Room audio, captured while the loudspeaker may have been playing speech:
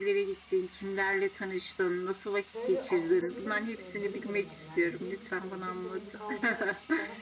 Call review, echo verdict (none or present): present